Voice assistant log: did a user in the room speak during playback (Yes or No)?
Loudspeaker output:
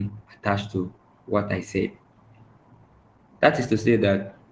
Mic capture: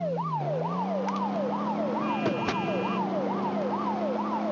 No